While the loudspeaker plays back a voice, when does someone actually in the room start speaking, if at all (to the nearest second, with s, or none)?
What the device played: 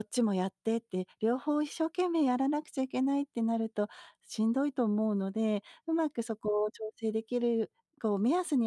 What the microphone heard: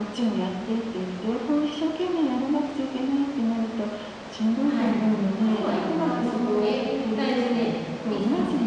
5 s